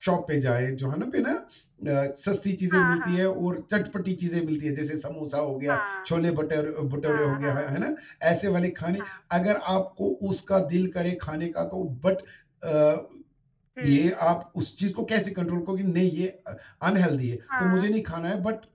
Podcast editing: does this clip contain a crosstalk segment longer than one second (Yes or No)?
No